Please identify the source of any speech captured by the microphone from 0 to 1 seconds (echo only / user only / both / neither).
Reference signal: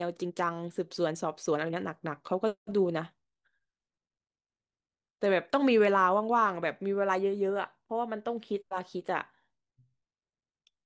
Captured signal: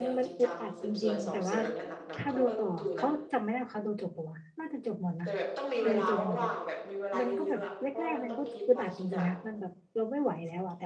both